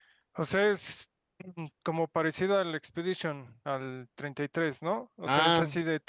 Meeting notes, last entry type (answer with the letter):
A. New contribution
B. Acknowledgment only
B